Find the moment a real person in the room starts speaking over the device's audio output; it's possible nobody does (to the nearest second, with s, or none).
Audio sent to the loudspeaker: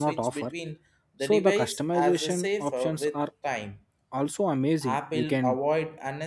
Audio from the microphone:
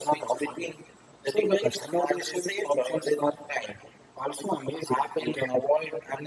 none